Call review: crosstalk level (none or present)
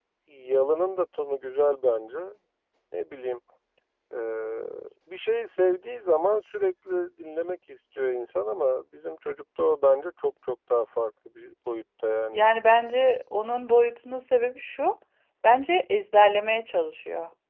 none